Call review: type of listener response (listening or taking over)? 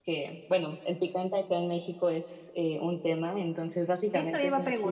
taking over